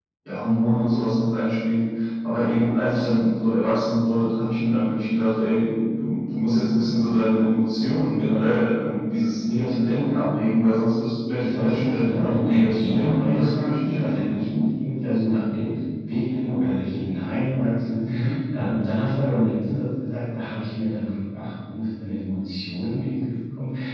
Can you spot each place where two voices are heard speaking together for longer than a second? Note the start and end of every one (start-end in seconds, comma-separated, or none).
11.4-14.4